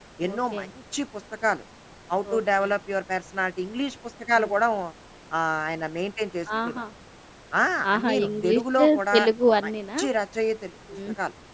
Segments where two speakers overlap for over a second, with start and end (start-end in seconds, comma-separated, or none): 7.9-9.2